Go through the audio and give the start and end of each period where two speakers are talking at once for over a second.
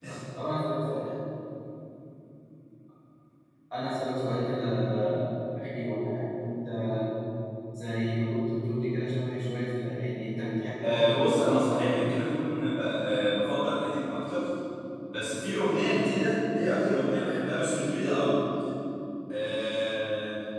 10.8-12.1

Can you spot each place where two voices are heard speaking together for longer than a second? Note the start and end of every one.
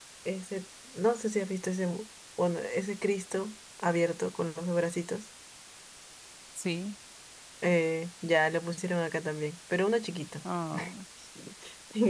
none

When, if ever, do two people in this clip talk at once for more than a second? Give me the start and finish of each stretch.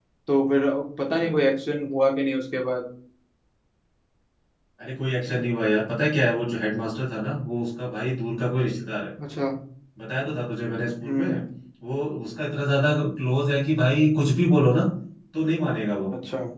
none

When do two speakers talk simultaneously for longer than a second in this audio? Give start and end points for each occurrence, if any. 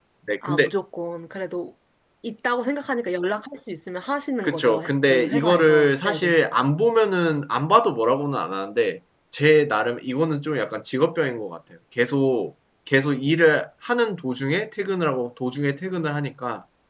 4.4-6.4

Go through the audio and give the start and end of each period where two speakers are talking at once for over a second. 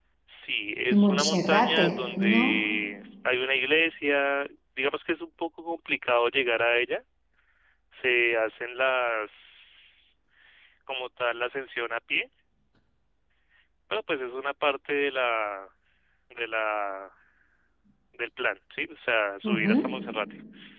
0.9-2.5

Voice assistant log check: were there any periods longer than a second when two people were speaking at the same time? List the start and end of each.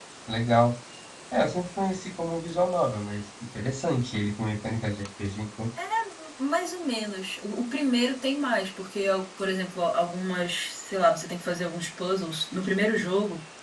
none

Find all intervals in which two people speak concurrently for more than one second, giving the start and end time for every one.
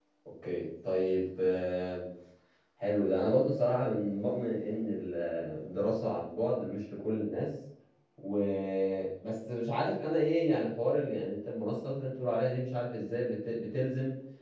none

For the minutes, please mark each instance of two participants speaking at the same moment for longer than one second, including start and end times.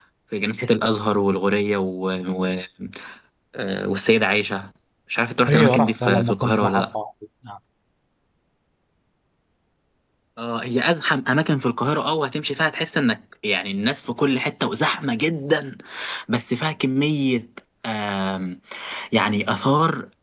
5.5-7.0

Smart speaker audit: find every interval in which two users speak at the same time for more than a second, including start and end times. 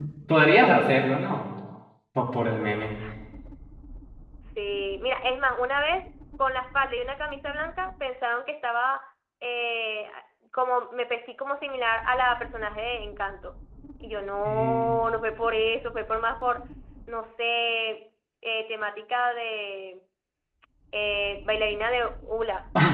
none

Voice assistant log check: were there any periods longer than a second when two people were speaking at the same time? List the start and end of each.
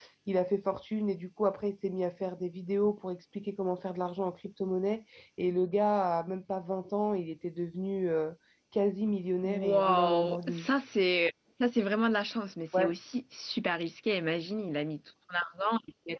9.4-10.7

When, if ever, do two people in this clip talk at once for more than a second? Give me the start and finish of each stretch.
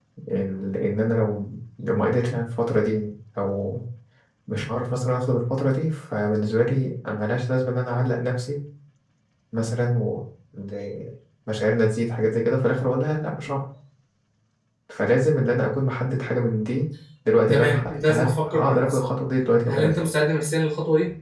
17.5-19.0

